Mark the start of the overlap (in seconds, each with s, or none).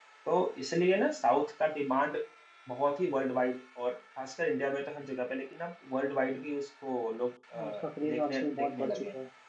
7.5 s